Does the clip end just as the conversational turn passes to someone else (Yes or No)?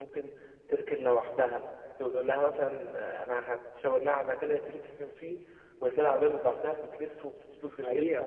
Yes